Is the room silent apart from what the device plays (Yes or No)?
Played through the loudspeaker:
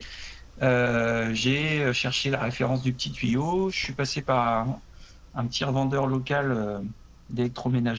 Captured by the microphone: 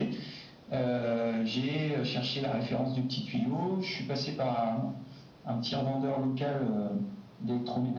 Yes